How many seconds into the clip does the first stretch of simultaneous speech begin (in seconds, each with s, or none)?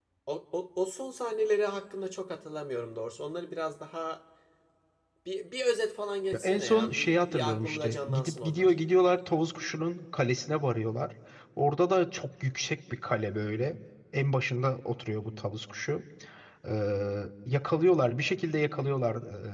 6.3 s